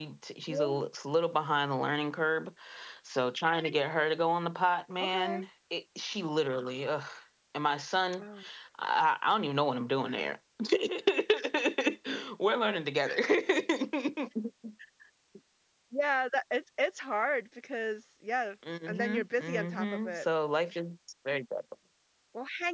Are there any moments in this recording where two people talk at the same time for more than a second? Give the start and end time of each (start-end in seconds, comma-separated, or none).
18.9-20.2